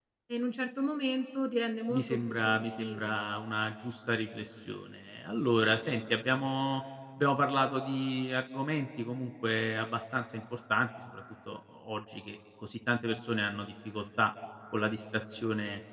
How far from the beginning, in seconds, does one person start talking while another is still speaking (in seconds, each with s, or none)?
1.9 s